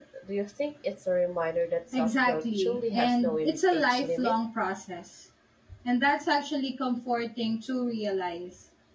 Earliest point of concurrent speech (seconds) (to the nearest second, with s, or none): 2 s